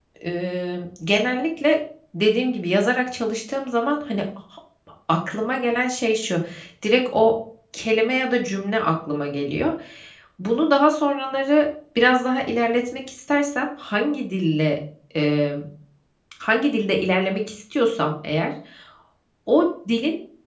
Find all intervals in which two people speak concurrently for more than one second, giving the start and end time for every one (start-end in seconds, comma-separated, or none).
none